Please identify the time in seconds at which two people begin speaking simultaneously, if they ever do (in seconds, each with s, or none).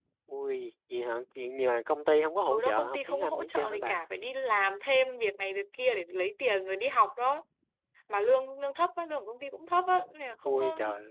2.5 s